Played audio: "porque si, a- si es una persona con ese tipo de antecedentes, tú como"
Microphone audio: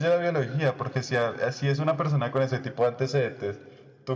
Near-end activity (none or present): none